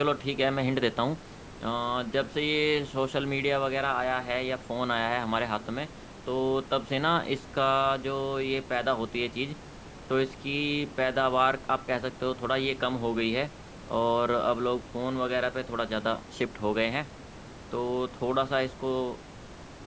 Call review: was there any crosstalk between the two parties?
No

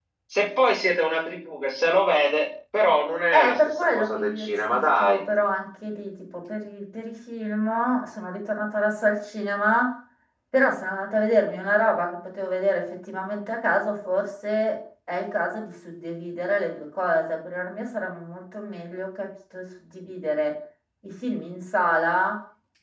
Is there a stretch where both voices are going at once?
Yes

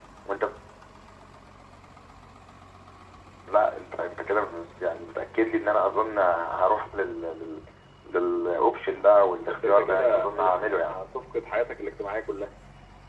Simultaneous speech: Yes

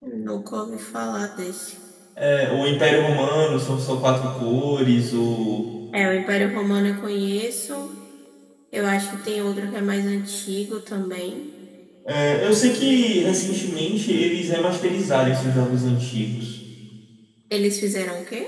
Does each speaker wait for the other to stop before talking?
Yes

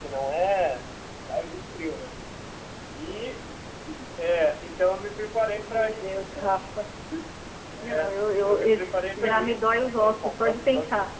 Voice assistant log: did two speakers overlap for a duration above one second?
Yes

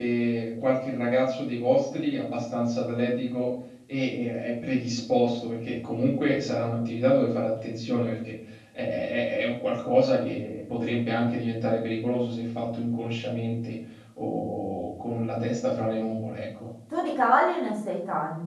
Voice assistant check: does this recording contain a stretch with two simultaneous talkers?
No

